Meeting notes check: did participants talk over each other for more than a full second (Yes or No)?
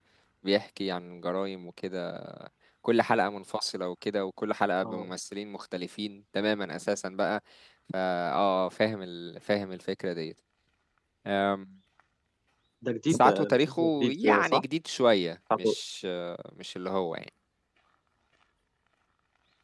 Yes